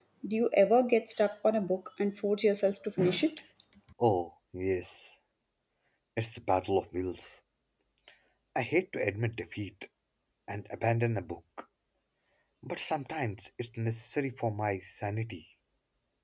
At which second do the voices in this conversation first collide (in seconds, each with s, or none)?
none